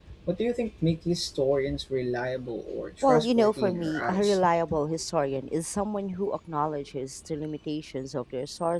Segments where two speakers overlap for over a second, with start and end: 3.0-4.4

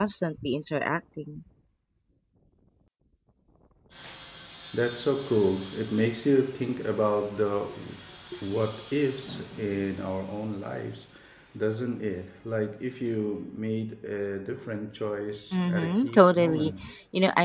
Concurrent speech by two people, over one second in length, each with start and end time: 15.5-16.7

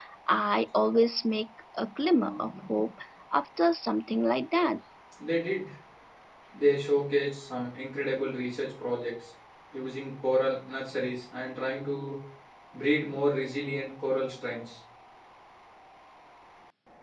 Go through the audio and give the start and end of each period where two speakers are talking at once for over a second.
none

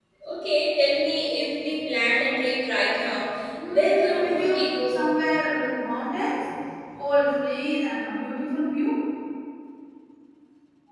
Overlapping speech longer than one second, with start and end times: 3.7-5.0

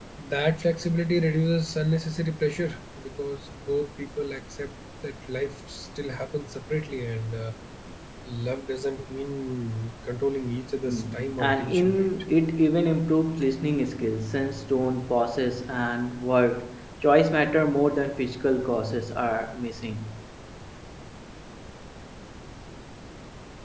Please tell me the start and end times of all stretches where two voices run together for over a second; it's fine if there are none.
10.9-12.1

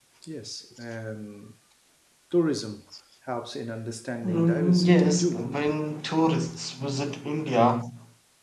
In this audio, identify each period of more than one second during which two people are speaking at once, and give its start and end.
4.2-5.5

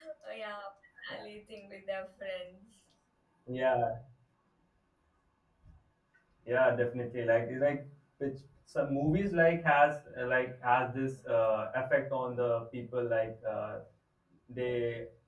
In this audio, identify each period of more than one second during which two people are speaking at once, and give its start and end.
none

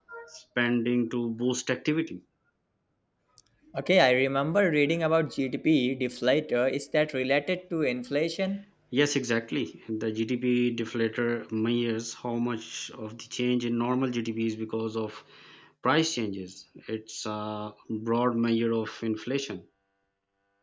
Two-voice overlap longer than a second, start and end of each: none

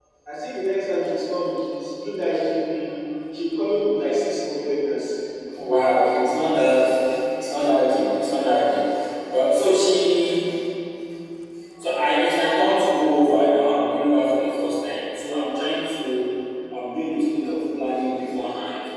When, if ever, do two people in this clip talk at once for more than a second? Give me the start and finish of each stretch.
none

